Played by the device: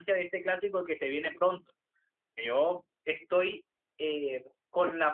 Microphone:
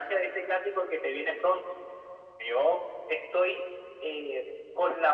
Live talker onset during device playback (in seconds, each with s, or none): none